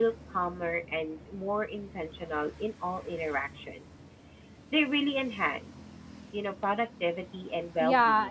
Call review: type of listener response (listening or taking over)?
taking over